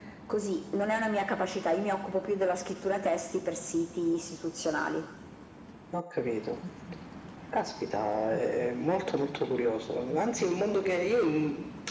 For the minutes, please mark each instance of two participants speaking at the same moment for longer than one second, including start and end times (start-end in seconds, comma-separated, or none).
none